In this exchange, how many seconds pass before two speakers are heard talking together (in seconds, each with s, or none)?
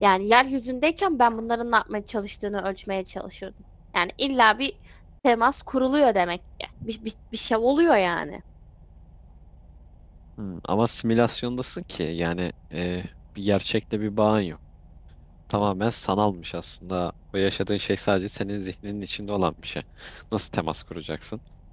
none